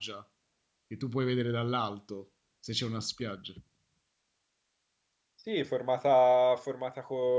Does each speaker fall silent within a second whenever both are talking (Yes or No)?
Yes